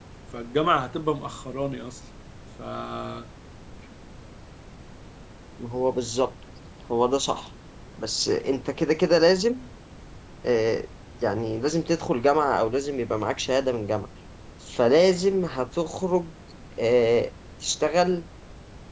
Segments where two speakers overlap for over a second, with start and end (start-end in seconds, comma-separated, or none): none